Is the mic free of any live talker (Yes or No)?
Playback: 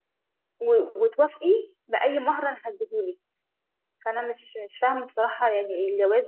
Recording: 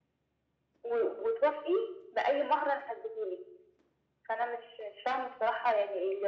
Yes